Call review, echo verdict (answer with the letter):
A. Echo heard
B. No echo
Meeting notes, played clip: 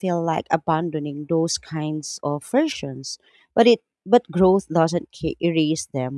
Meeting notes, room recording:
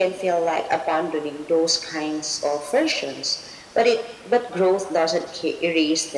A